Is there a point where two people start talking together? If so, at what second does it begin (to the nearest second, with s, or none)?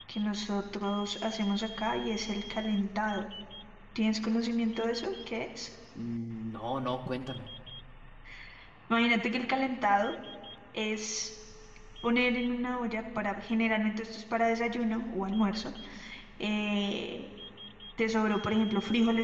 none